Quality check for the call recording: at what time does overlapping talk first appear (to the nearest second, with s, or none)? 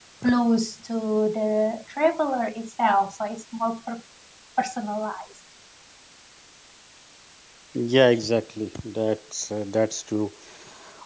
none